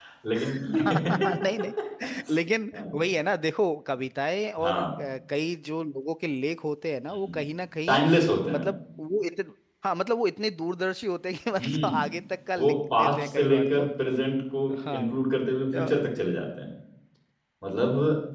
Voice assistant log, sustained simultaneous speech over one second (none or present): present